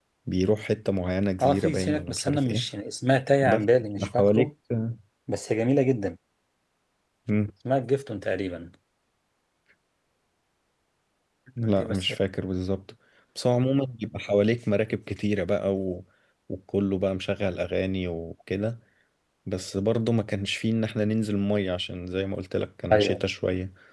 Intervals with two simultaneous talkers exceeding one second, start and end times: 1.4-2.7

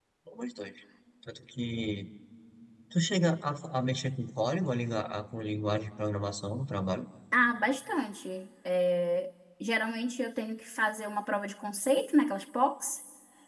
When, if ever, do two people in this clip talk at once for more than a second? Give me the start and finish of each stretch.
none

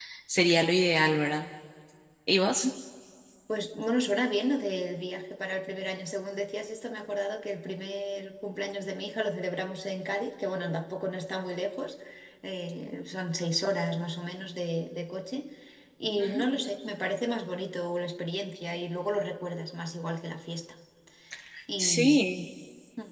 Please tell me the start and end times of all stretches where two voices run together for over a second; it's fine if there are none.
none

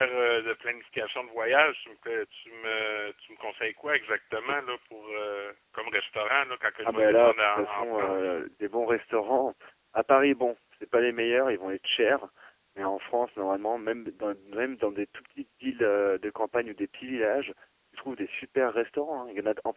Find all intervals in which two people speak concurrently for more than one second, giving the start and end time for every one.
6.8-8.3

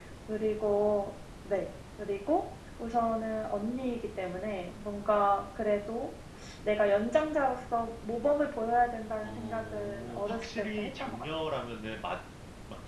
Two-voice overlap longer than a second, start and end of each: 9.2-11.2

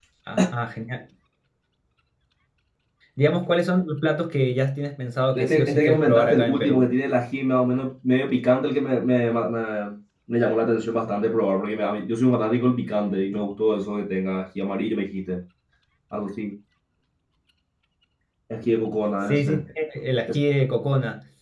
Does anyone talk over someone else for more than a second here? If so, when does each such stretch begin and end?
5.3-6.9

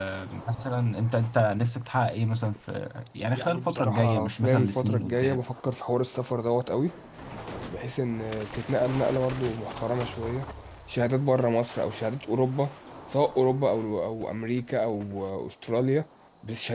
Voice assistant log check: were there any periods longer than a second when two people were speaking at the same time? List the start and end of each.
3.3-5.4

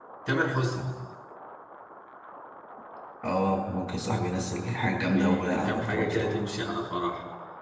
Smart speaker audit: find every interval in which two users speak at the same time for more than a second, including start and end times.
5.1-6.4

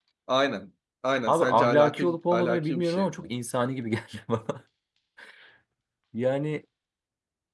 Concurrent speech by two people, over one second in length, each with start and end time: 1.3-3.2

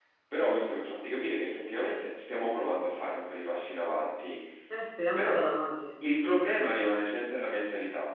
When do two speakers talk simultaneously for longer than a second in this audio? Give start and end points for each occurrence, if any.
none

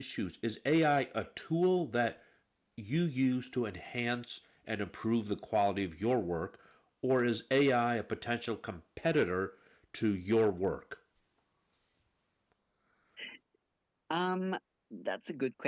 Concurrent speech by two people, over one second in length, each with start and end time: none

